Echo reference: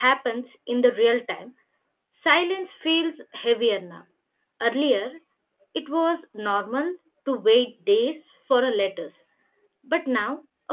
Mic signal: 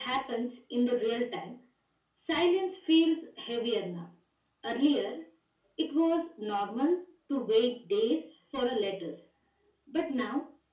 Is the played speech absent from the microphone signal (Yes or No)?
No